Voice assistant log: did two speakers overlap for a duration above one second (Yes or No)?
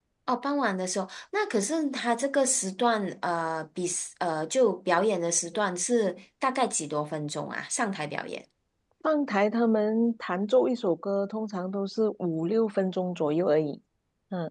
No